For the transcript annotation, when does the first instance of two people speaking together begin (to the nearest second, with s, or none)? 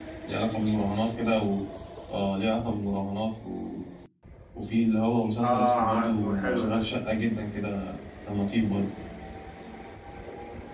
5 s